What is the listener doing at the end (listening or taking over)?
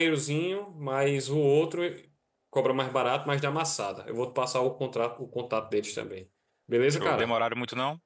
taking over